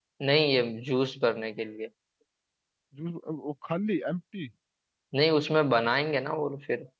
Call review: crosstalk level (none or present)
none